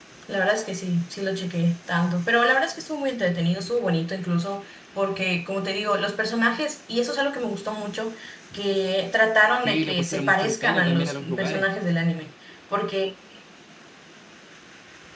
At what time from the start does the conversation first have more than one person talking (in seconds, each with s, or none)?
9.6 s